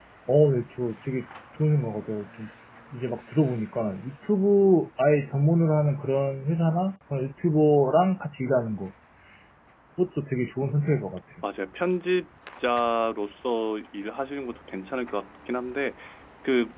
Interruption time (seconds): none

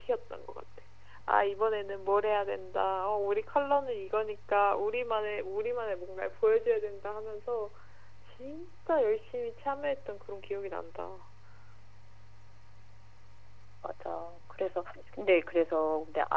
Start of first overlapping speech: none

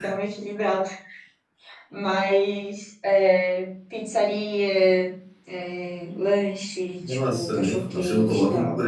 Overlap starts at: 7.0 s

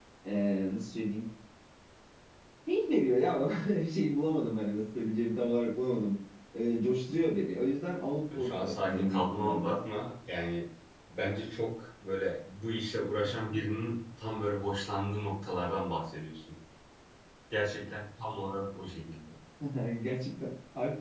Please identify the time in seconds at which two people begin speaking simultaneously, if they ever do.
8.4 s

